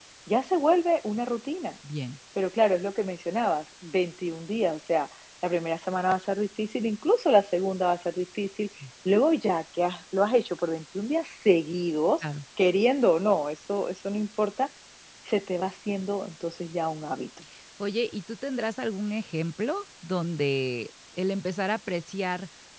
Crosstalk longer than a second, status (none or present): none